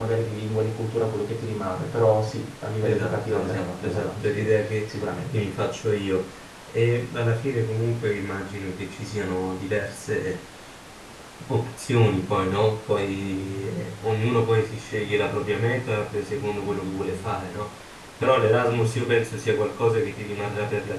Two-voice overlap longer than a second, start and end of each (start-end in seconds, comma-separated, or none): 2.8-4.5